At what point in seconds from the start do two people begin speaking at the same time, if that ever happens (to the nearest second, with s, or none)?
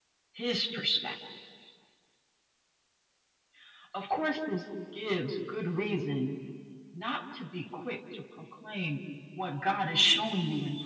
none